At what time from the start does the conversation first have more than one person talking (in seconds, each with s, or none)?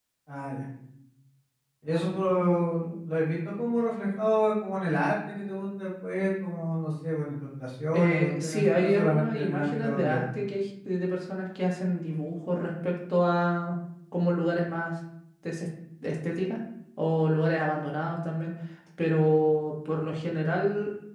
7.9 s